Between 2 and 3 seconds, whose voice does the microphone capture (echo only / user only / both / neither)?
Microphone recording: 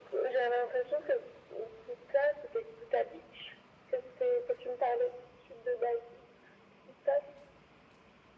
echo only